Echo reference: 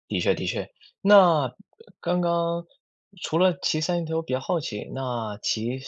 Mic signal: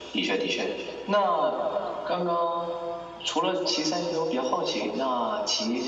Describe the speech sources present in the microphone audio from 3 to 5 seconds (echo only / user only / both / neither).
echo only